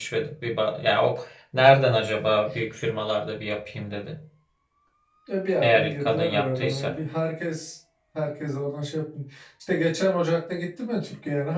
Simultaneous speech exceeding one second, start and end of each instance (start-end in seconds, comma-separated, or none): 5.6-6.9